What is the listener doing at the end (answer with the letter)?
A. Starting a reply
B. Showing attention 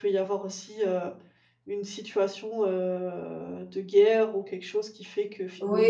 A